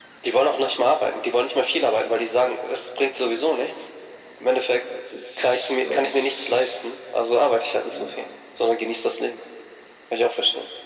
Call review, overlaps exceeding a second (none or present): present